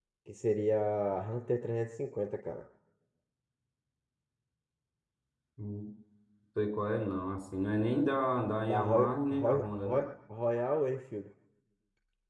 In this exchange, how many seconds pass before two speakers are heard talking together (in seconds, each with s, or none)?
8.7 s